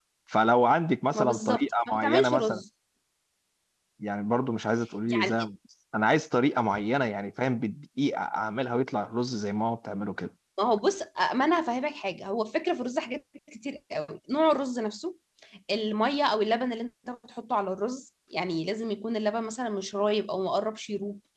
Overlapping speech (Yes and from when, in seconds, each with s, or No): Yes, from 1.1 s